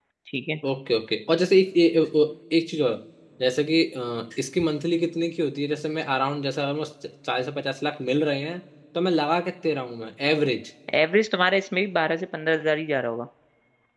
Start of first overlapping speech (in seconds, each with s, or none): none